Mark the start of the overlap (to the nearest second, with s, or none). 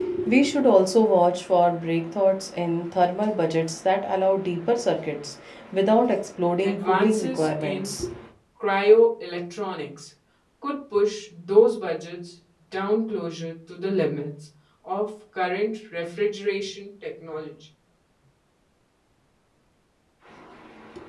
7 s